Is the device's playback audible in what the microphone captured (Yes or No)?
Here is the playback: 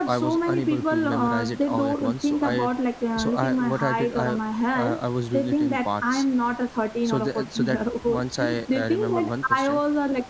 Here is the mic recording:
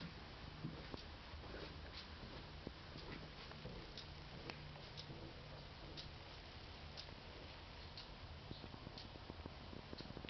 No